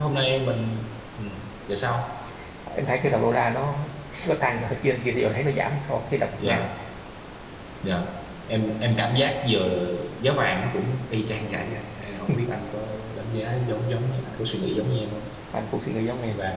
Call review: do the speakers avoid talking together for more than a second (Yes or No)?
Yes